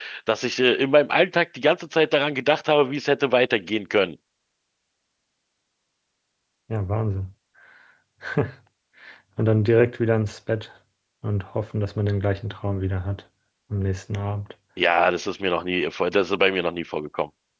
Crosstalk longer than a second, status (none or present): none